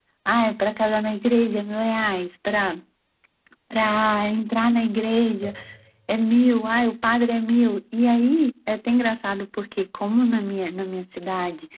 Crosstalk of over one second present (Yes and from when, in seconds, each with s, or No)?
No